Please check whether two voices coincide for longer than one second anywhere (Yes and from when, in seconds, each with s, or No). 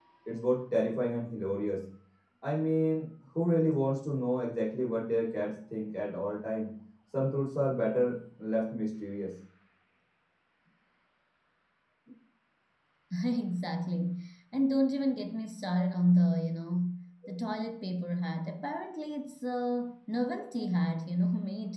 No